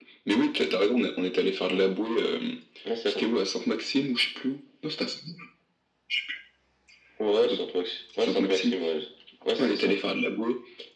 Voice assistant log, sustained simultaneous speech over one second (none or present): none